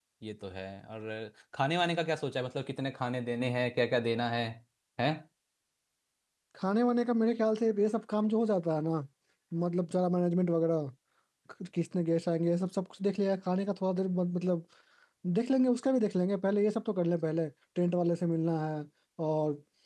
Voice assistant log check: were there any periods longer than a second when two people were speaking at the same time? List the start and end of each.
none

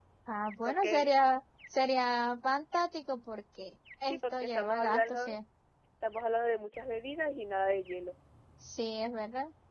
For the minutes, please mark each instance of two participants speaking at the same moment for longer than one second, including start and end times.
4.1-5.3

